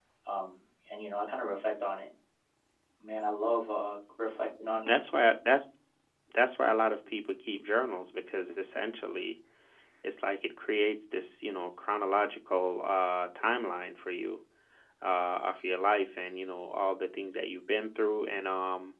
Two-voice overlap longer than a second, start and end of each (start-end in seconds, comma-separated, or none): none